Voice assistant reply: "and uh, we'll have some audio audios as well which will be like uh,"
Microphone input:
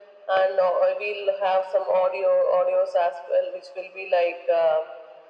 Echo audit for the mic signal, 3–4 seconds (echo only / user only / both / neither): echo only